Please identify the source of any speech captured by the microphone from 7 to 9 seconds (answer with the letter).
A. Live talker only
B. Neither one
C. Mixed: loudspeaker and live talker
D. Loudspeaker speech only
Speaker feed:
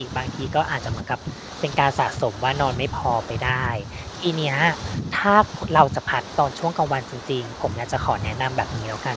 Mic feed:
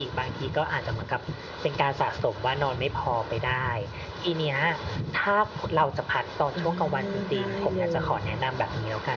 C